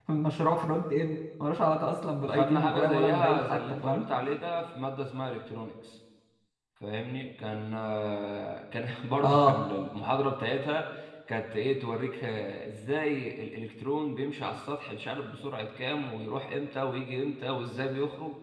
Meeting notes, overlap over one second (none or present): present